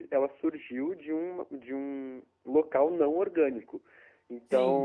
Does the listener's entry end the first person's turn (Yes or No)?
Yes